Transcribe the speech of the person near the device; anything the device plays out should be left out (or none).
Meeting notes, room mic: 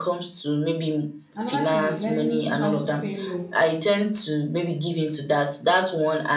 Another thing is learn how to say no.